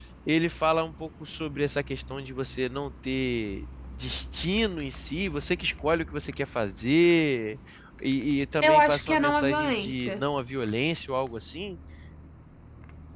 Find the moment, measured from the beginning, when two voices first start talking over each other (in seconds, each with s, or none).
8.6 s